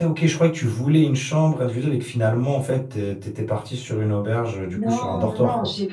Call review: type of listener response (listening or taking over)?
taking over